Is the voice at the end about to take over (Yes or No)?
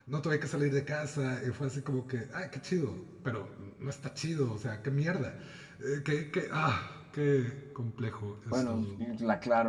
Yes